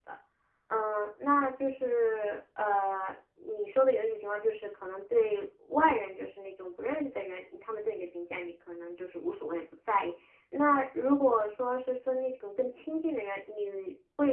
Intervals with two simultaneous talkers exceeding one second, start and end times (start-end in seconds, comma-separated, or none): none